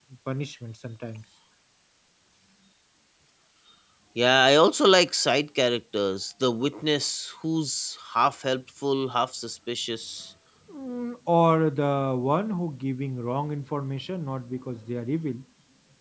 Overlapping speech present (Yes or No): No